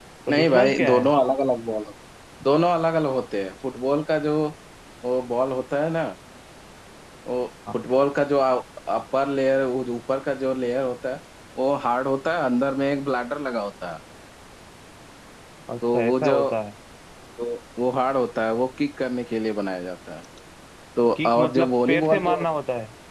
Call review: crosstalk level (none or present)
present